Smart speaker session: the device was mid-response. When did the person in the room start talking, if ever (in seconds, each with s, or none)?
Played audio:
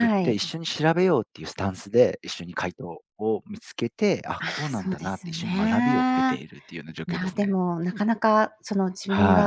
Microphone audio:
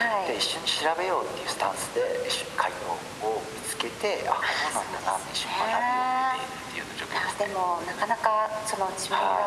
none